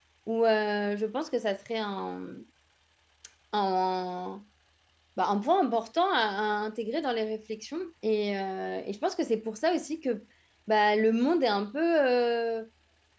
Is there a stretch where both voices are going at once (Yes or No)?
No